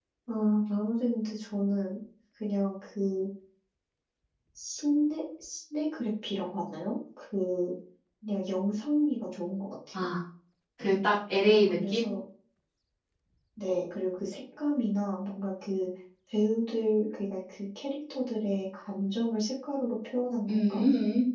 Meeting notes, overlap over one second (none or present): none